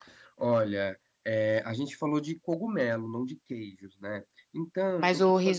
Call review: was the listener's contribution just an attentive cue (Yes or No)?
No